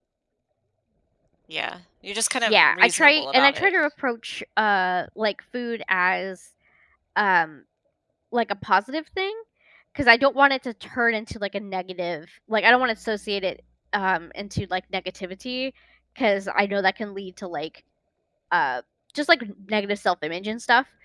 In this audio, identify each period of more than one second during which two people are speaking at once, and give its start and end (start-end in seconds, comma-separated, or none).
2.5-3.7